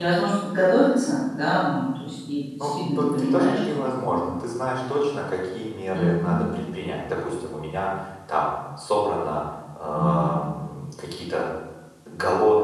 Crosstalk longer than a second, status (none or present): present